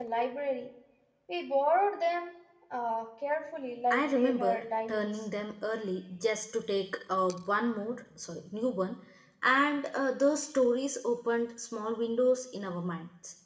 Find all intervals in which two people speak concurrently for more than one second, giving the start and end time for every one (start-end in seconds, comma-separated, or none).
3.9-5.2